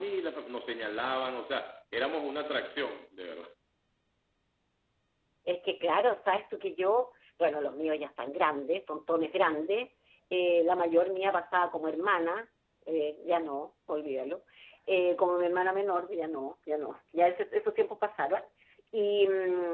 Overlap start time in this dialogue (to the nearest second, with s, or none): none